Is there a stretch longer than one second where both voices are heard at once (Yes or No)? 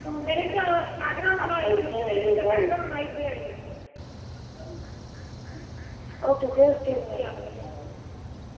Yes